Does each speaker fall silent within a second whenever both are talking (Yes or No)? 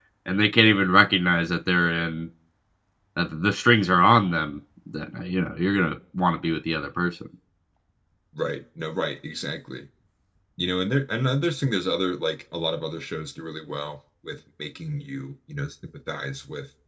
Yes